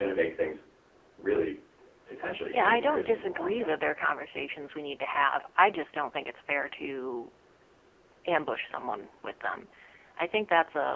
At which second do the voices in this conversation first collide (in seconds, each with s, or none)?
2.5 s